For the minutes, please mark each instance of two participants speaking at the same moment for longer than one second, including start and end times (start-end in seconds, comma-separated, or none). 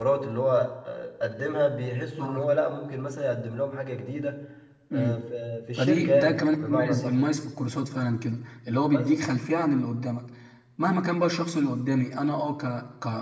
5.8-7.2